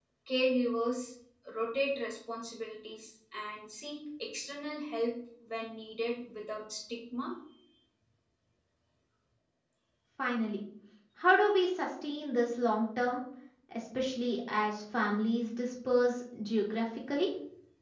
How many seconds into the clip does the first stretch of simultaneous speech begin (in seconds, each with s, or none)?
none